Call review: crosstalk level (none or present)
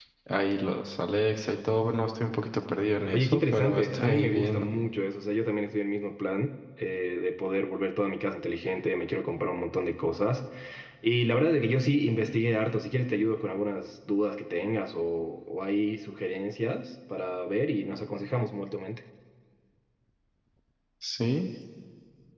present